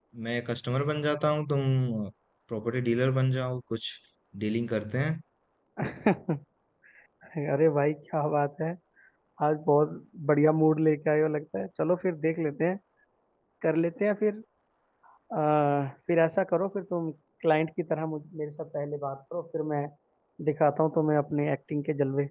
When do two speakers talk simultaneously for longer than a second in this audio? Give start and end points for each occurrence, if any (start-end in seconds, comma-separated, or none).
none